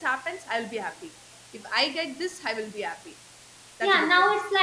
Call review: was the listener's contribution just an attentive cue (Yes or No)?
No